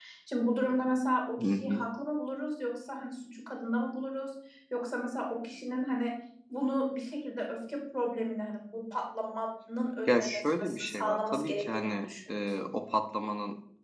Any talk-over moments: Yes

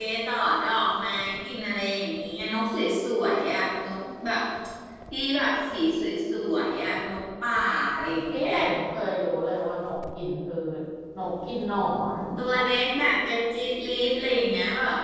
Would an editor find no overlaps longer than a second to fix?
Yes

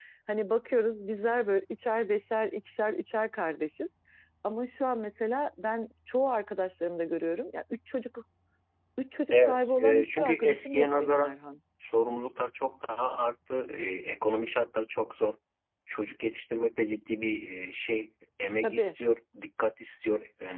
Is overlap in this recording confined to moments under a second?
No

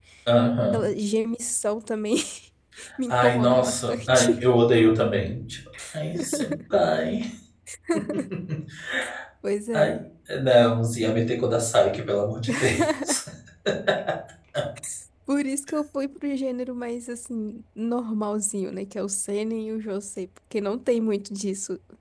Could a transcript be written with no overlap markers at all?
No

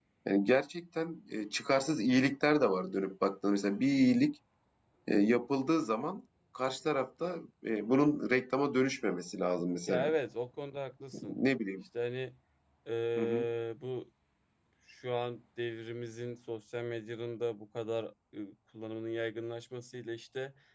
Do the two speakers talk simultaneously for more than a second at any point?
No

